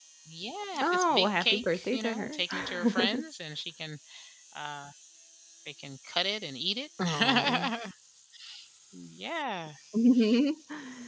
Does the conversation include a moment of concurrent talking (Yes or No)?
Yes